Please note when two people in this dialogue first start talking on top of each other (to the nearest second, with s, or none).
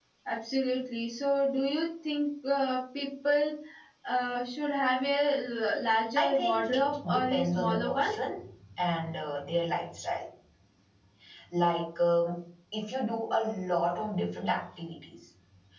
6 s